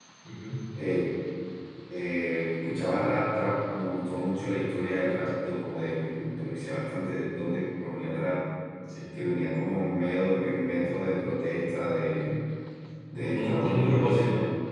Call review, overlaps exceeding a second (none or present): present